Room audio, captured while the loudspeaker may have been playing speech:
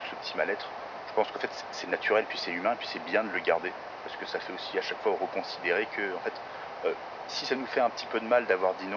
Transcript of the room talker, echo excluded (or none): none